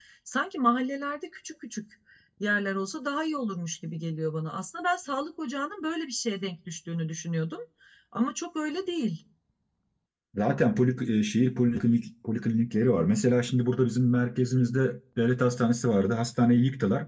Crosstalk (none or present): none